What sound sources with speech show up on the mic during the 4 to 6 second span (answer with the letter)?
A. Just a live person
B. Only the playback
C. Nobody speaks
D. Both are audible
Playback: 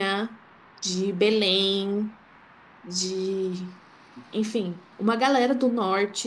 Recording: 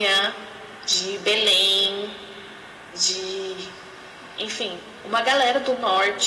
B